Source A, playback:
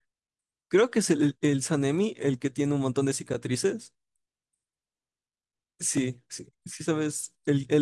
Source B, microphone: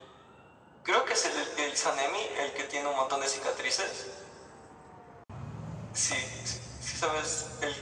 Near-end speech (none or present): none